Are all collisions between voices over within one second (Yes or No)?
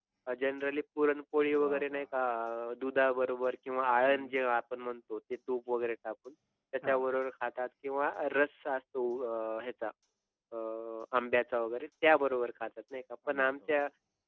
Yes